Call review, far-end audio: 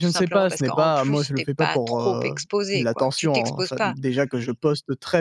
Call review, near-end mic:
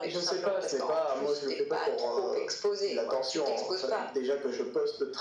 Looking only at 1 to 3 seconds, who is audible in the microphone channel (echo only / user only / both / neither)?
echo only